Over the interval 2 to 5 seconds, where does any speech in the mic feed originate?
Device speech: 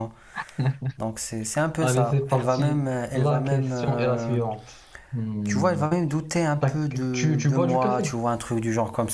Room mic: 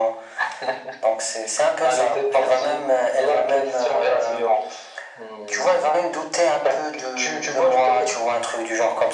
echo only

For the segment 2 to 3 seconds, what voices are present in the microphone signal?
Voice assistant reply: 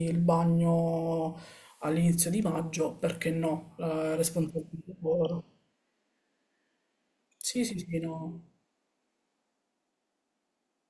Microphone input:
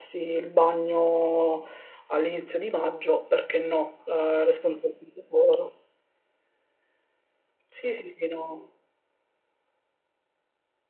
echo only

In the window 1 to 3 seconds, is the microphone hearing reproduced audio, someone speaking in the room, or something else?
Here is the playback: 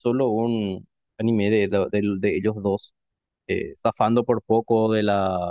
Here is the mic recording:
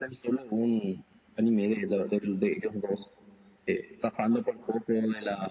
echo only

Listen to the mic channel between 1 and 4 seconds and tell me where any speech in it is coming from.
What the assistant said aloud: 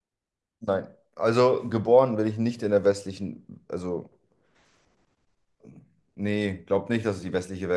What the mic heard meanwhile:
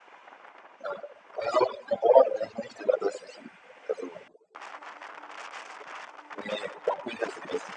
echo only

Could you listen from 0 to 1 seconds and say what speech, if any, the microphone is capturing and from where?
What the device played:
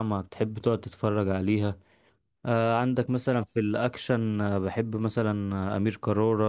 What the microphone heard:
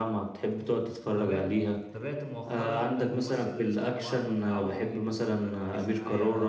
echo only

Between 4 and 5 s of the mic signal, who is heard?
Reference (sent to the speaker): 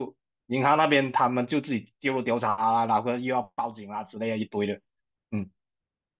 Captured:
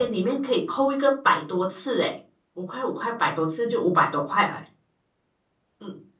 user only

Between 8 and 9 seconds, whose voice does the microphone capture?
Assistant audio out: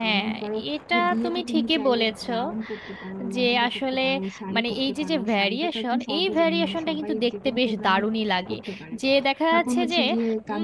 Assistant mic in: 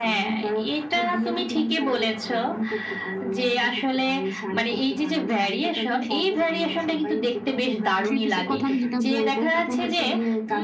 both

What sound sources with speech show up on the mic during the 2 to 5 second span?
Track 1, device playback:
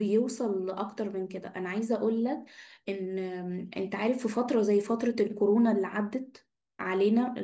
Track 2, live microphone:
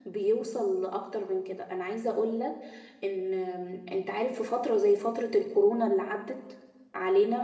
echo only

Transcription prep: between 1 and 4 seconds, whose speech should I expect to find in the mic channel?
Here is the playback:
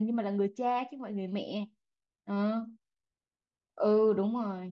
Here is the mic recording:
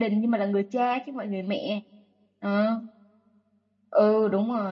echo only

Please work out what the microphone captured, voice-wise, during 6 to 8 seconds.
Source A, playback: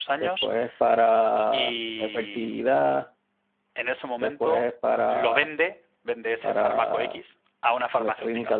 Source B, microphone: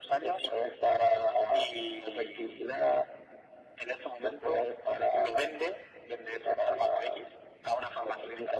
echo only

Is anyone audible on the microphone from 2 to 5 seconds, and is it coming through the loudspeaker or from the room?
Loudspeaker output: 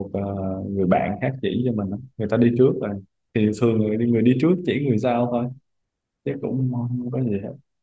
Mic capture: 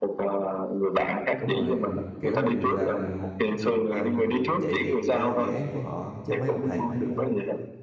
both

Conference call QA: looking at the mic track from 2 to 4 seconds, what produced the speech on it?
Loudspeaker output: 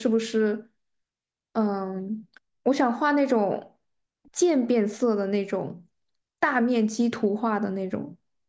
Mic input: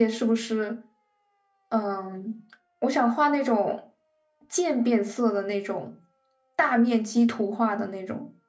echo only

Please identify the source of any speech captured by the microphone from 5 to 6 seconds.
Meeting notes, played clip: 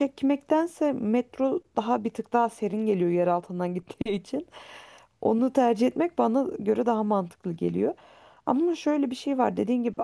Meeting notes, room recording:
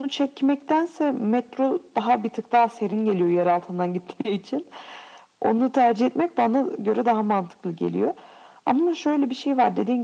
echo only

